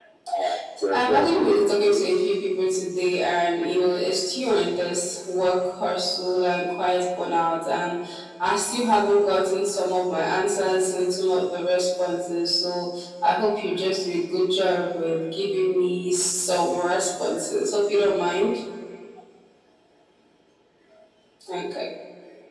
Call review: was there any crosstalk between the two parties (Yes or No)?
Yes